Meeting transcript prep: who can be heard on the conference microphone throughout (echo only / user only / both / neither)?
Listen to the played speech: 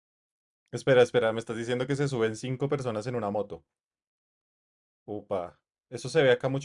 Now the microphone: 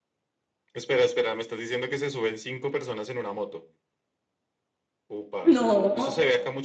both